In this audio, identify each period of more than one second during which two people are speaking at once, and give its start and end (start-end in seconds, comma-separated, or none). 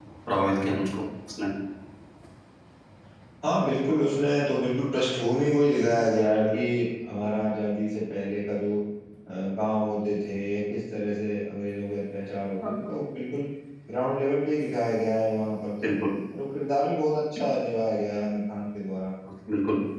none